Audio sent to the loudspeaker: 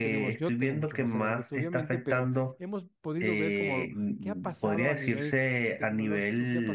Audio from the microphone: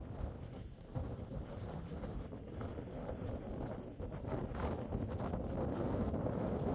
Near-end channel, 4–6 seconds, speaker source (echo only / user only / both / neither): neither